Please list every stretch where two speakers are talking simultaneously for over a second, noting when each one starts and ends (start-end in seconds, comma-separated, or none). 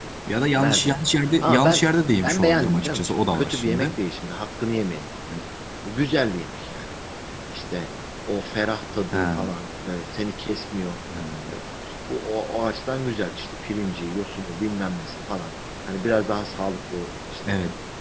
1.4-4.0